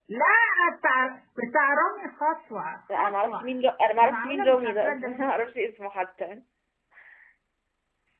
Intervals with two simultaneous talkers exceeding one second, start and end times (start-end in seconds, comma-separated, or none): 4.0-5.3